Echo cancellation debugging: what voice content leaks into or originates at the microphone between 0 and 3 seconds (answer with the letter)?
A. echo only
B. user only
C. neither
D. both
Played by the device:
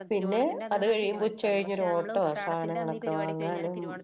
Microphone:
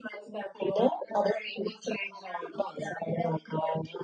A